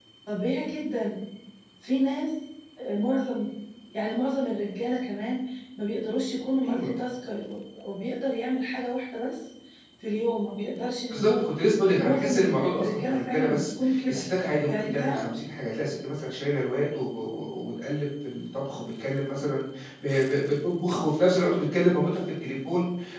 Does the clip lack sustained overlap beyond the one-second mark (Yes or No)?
No